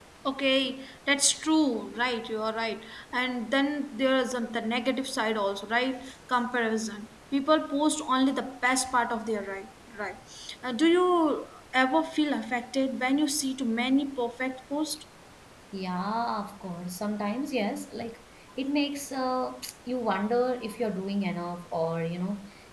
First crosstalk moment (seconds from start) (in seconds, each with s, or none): none